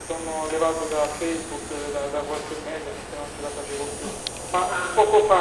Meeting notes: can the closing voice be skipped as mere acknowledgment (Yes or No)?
Yes